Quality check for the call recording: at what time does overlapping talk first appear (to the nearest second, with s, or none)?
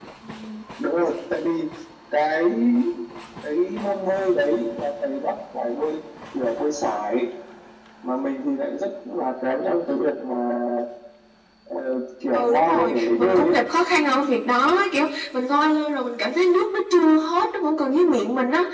12 s